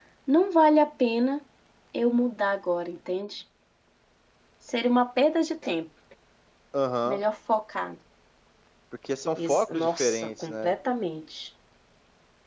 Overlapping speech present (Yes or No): Yes